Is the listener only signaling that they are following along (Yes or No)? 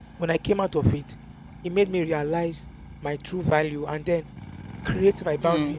Yes